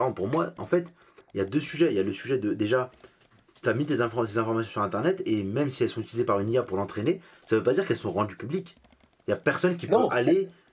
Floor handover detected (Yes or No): No